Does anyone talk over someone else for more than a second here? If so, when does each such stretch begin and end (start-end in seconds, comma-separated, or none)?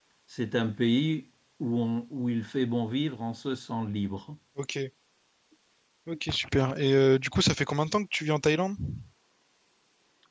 none